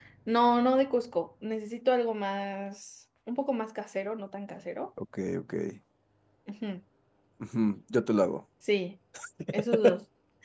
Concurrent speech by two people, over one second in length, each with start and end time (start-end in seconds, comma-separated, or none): none